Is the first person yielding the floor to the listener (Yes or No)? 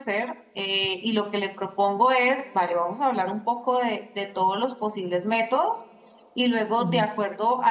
No